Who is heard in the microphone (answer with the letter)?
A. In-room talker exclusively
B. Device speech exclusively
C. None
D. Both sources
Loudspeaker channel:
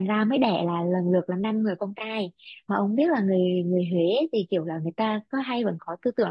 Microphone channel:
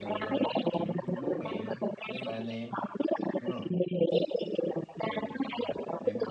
D